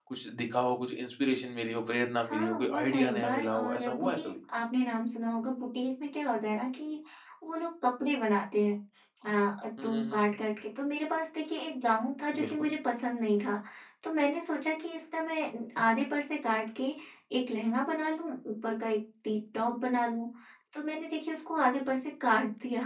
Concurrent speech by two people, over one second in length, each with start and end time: 2.2-4.3

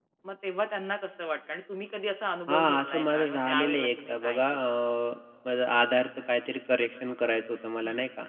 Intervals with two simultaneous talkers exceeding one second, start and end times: 2.5-4.4

